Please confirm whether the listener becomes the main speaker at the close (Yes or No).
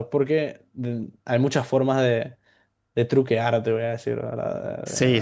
Yes